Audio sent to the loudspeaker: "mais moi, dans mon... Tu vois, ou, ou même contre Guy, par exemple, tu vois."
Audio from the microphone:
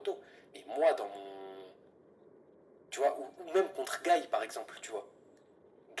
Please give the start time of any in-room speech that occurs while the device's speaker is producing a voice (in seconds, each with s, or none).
none